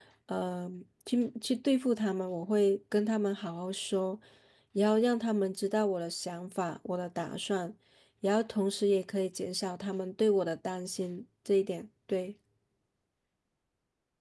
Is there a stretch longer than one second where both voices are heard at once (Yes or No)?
No